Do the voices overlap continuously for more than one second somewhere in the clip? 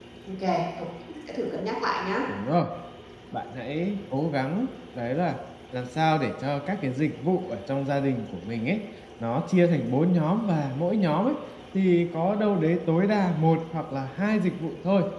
No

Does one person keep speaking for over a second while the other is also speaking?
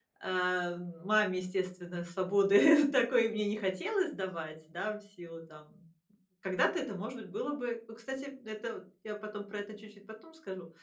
No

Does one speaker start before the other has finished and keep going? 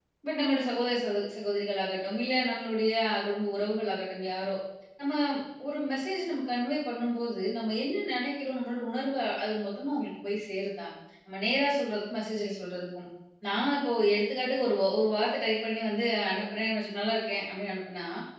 No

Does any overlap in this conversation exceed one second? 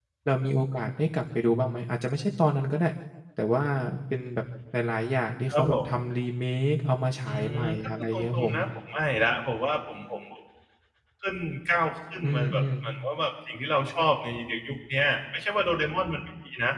Yes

